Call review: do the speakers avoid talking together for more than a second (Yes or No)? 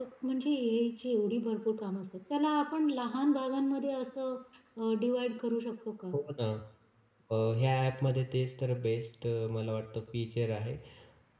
Yes